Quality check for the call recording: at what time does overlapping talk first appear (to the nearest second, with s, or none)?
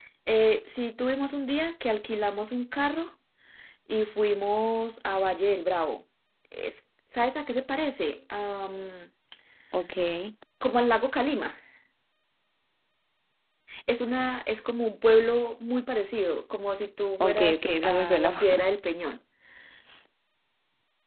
17 s